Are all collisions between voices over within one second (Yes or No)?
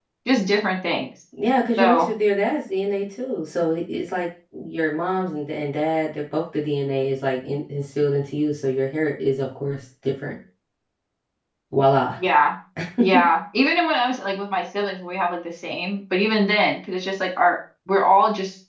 Yes